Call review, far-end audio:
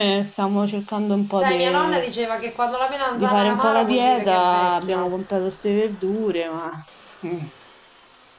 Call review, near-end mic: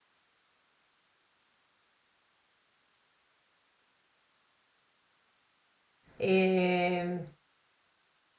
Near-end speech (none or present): present